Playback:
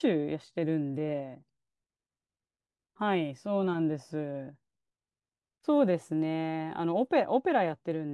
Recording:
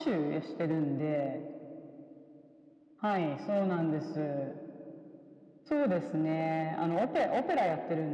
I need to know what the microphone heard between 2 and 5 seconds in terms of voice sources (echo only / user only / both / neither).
echo only